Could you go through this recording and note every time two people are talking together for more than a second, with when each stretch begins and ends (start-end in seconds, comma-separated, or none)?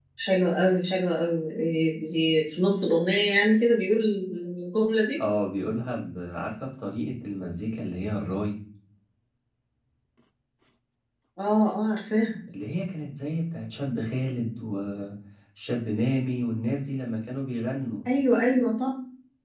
none